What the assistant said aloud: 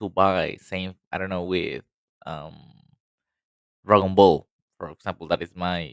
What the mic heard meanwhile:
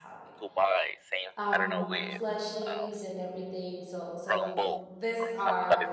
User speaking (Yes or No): Yes